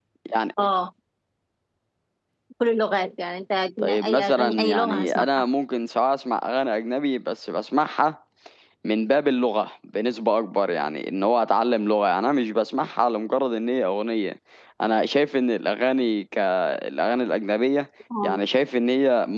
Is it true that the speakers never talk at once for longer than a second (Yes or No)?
No